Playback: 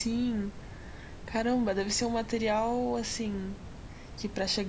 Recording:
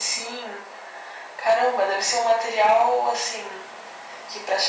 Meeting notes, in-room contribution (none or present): none